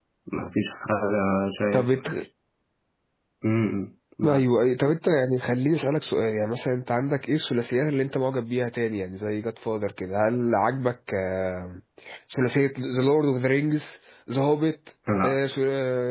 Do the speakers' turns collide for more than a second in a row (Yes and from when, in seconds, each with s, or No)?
No